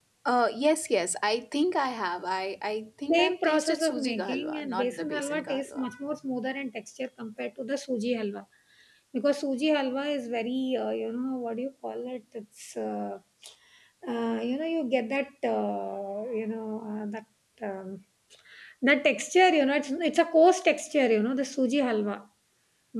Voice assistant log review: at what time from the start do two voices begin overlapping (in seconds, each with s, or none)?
3.1 s